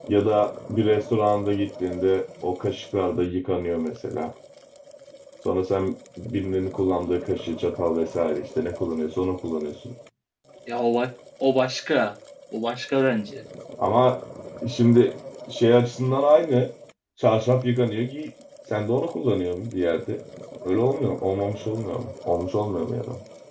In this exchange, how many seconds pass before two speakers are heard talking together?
none

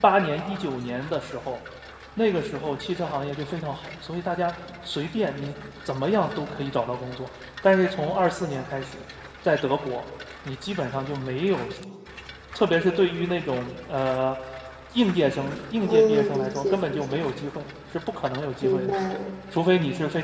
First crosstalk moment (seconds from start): 15.8 s

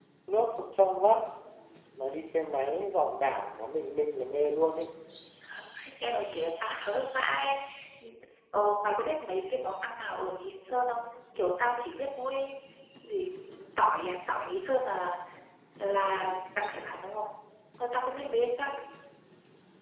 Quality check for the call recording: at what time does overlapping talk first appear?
none

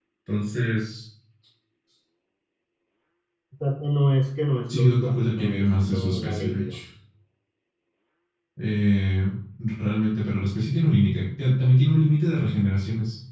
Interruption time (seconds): 4.7 s

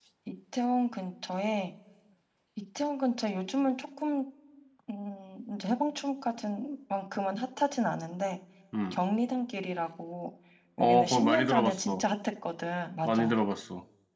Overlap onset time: 10.8 s

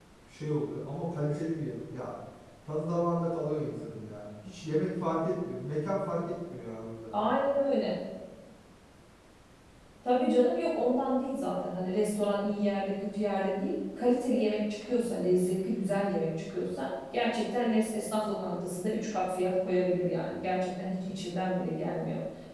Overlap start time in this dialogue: none

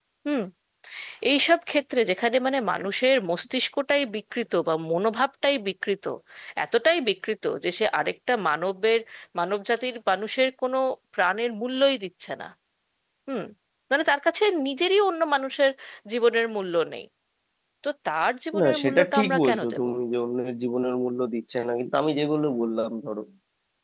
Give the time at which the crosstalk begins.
18.6 s

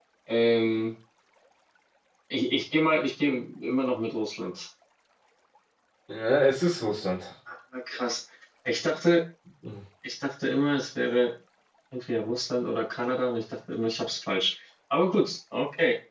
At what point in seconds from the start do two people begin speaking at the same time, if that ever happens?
none

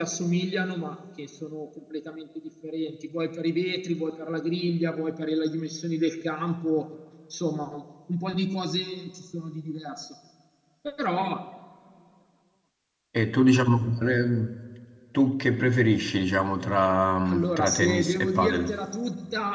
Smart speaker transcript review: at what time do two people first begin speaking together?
17.3 s

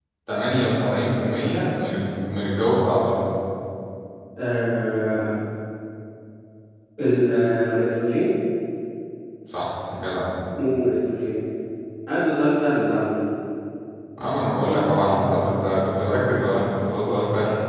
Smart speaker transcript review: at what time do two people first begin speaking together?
none

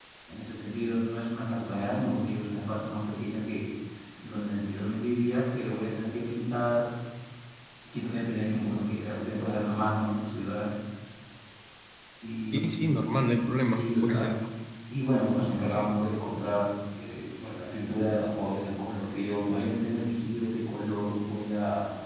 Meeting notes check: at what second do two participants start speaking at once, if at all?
12.5 s

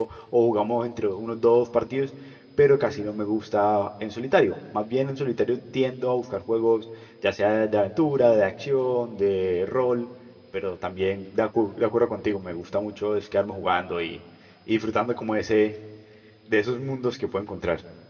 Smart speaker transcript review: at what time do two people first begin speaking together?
none

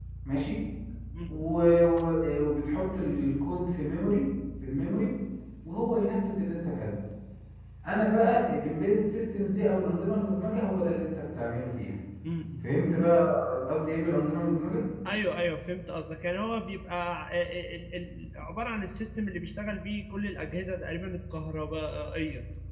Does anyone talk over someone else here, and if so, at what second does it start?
none

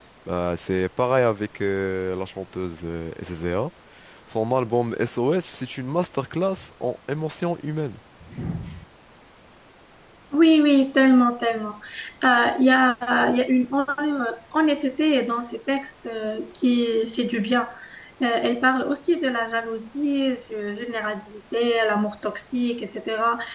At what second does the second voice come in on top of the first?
none

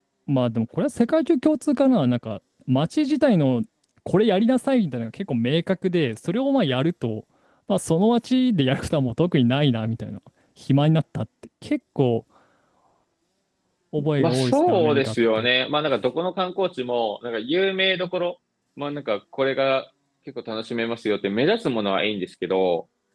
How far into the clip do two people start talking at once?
14.2 s

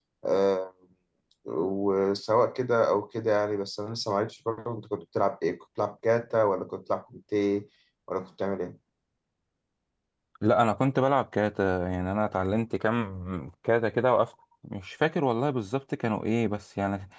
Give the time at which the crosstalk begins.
none

